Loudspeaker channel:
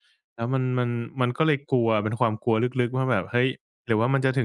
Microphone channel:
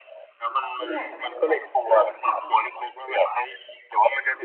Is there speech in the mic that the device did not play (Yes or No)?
Yes